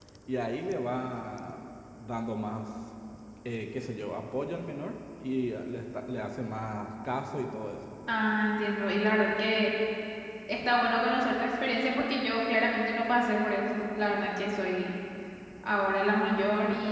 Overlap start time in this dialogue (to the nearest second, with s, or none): none